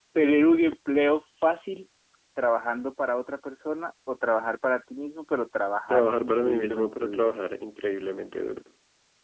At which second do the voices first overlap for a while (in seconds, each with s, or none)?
5.9 s